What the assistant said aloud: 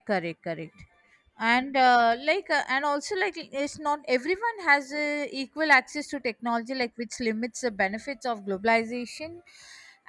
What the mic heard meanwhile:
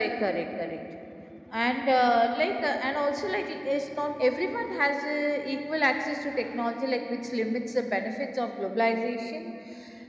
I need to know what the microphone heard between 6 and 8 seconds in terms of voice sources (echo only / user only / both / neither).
echo only